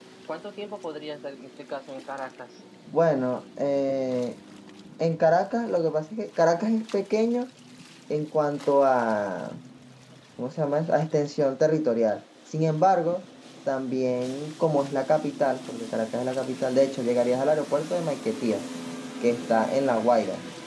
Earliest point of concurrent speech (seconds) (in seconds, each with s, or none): none